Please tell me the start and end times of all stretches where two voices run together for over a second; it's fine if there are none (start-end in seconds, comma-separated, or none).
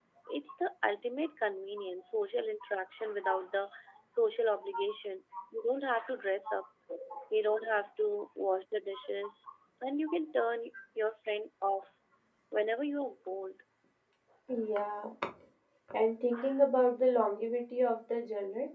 none